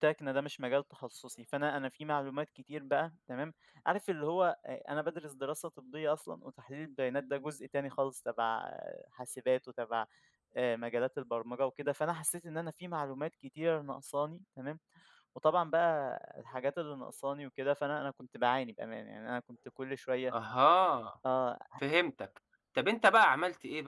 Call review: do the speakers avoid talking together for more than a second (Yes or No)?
Yes